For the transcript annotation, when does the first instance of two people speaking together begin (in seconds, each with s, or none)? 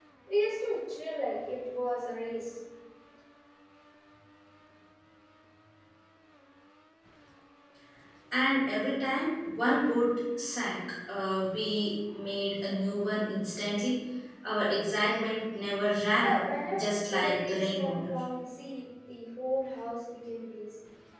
16.2 s